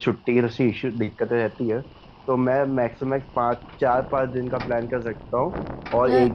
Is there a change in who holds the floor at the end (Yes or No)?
No